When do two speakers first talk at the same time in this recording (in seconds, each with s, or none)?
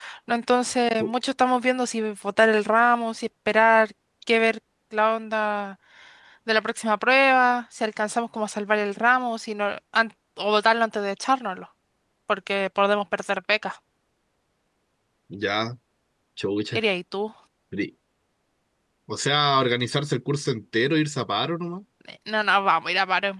none